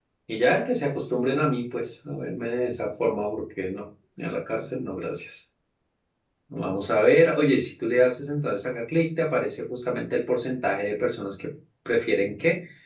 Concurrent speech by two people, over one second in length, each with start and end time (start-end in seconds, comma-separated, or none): none